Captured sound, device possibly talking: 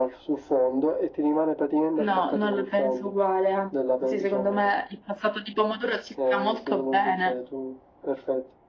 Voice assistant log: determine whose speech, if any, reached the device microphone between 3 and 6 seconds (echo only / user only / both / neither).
echo only